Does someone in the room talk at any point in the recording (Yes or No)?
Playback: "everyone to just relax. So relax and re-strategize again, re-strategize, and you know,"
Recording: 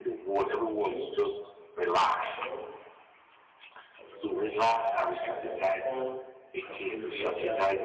Yes